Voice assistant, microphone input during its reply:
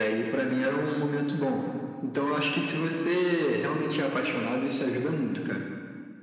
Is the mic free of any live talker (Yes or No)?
Yes